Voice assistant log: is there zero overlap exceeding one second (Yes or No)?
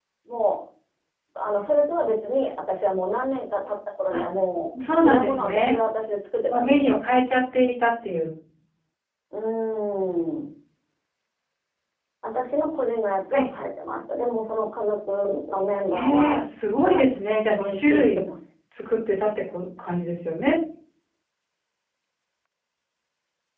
No